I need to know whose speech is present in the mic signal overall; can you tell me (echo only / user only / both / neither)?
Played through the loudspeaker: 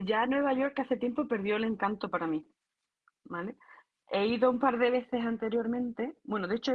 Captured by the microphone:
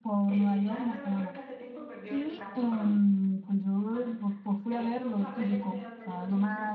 both